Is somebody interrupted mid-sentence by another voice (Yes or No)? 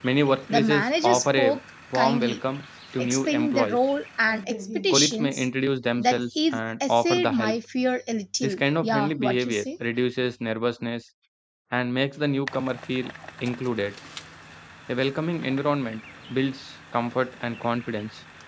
Yes